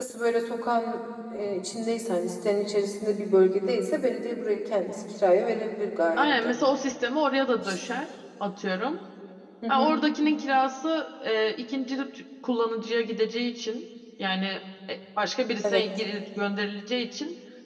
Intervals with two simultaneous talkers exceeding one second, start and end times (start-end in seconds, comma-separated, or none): none